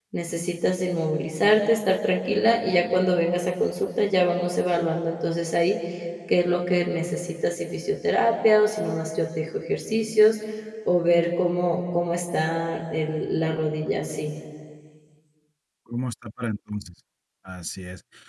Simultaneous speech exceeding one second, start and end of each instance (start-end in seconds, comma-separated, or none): none